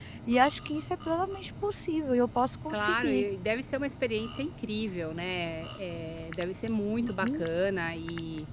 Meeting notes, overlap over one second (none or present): none